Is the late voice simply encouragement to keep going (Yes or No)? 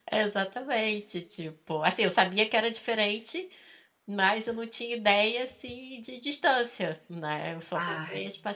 Yes